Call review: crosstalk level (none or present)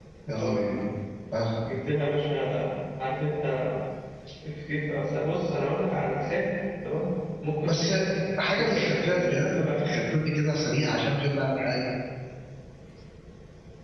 present